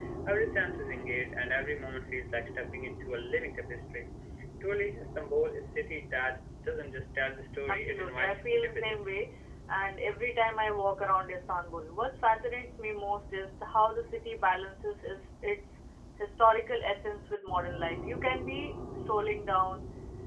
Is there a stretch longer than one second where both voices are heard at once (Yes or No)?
Yes